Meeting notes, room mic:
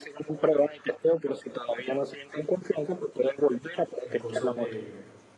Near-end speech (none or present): present